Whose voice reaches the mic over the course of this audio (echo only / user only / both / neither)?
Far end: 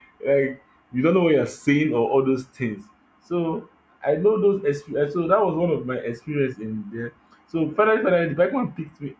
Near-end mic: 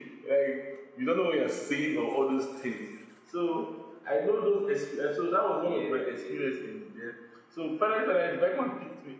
both